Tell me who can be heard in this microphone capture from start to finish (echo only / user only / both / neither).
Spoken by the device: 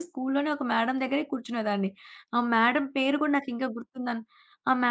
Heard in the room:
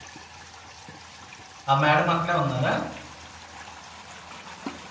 user only